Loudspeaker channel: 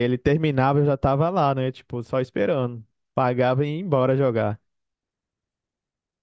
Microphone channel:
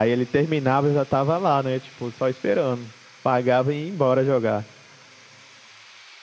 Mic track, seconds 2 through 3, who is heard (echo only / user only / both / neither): echo only